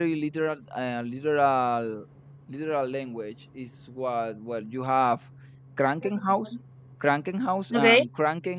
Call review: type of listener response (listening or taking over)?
listening